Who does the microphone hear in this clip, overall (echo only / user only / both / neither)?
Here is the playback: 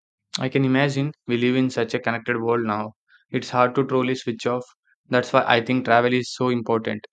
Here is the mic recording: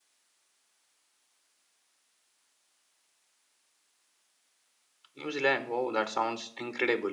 user only